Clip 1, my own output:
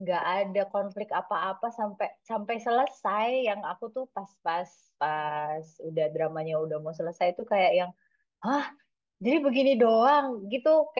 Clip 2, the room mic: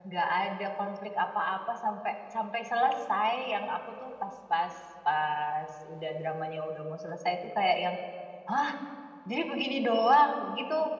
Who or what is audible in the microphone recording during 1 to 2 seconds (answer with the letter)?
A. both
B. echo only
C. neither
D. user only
B